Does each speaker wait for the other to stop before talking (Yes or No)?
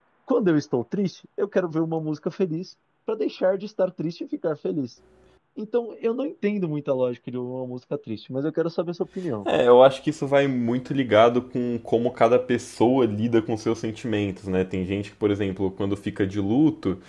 Yes